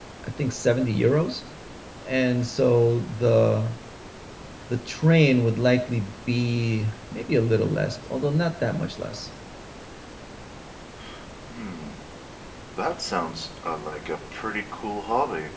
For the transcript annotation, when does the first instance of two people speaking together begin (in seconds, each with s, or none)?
none